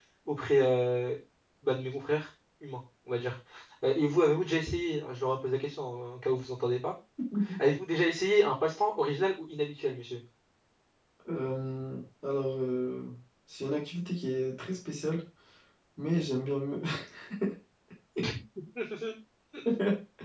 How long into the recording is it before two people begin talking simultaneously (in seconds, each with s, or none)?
none